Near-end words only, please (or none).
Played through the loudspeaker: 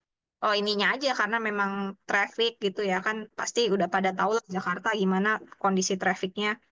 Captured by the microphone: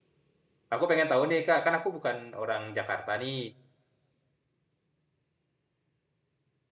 Aku pengen tahu nih, Kak. Kan aku bukan orang Jakarta nih.